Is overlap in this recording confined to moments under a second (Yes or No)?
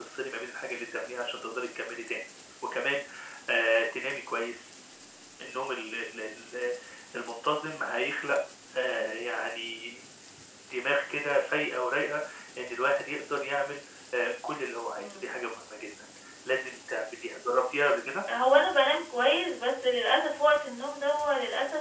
Yes